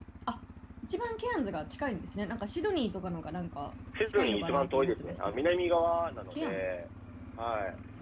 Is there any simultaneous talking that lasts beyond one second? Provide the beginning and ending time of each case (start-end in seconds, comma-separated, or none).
4.1-5.6